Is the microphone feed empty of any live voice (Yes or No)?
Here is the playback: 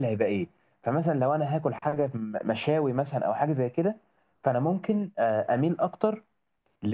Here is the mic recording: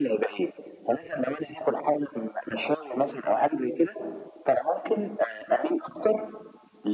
Yes